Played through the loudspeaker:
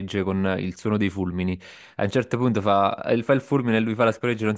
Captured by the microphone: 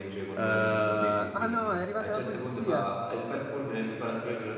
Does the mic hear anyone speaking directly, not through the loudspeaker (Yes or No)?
Yes